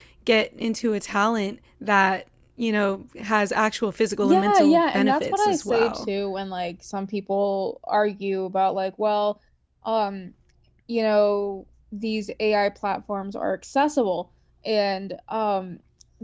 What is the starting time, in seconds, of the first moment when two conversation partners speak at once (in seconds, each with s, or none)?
4.2 s